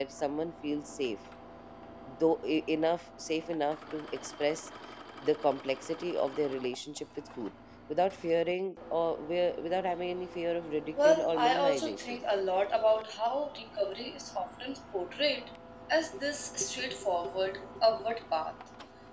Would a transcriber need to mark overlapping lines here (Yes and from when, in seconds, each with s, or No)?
Yes, from 11.0 s